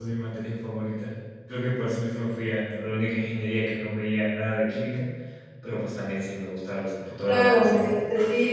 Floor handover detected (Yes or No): Yes